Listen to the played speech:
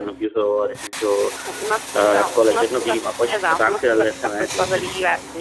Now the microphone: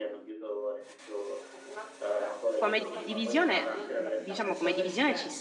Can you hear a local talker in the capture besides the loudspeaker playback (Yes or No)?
Yes